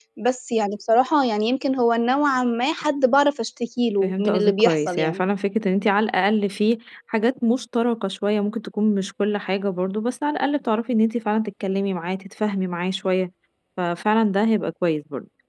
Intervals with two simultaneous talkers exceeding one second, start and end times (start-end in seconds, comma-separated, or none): 4.0-5.2